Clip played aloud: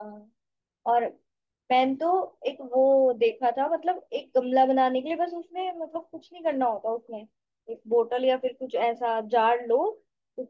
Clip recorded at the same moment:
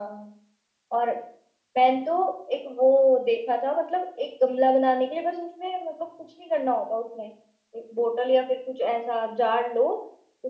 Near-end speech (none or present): none